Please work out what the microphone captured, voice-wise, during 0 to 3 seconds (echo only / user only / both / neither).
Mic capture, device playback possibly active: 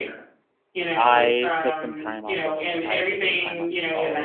both